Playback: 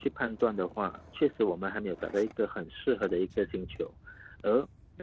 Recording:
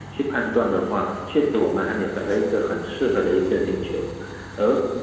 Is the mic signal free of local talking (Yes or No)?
Yes